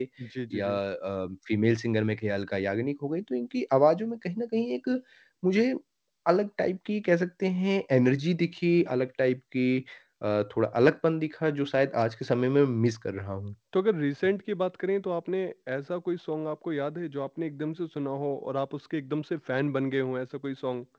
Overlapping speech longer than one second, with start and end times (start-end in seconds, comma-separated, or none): none